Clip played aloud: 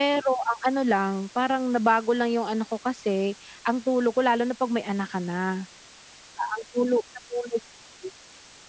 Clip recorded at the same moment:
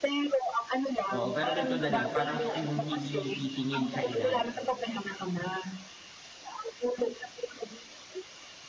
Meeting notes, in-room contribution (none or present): present